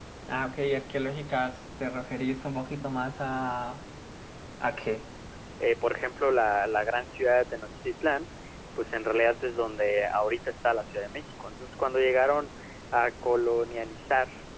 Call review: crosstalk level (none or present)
none